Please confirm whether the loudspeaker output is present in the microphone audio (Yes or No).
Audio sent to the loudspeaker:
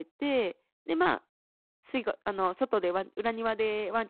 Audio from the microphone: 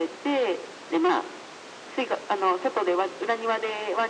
Yes